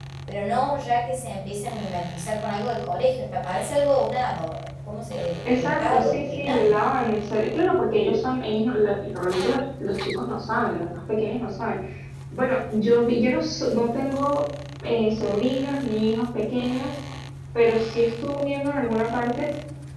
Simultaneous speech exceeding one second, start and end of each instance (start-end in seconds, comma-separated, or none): 5.6-6.8